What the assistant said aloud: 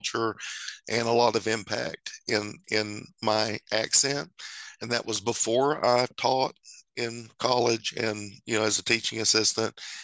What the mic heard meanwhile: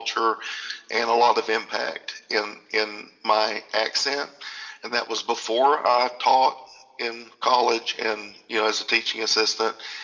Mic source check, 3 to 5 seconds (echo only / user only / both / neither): echo only